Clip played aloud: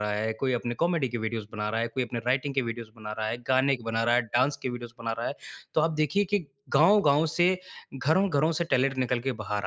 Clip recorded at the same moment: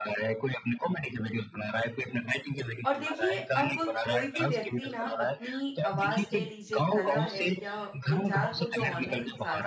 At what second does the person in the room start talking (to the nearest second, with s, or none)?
3 s